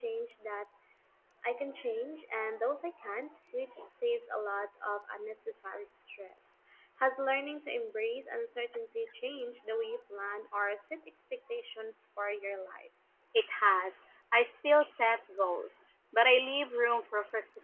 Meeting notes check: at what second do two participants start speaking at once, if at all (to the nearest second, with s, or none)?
none